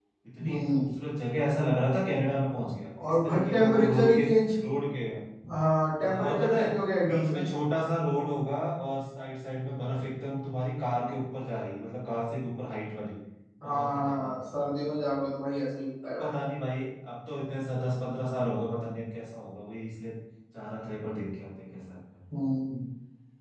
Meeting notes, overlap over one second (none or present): present